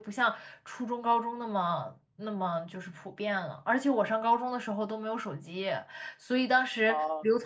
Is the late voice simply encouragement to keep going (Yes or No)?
Yes